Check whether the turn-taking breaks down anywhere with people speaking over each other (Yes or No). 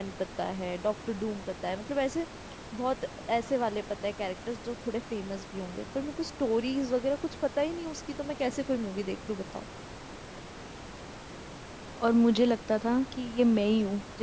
No